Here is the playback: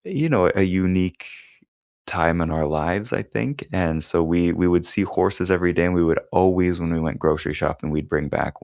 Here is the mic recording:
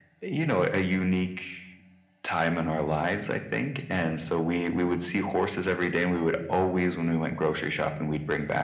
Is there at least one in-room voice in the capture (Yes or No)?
No